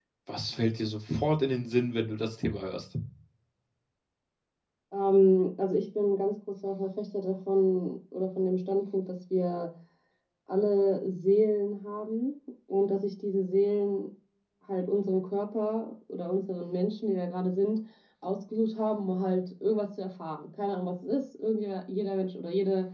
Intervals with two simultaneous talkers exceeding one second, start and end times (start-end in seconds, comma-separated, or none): none